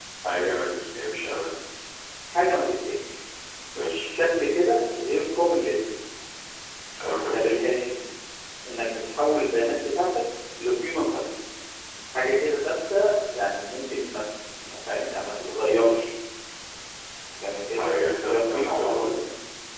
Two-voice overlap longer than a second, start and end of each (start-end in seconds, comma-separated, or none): 17.8-19.2